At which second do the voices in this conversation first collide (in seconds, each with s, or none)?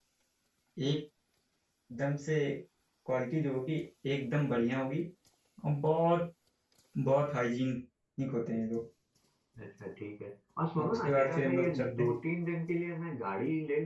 10.8 s